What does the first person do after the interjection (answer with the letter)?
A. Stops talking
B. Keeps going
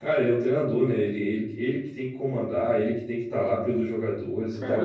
A